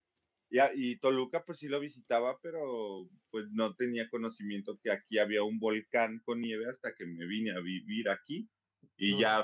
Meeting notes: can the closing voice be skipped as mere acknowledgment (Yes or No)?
Yes